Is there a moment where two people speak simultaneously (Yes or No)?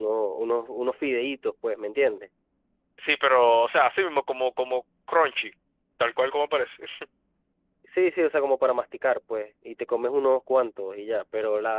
No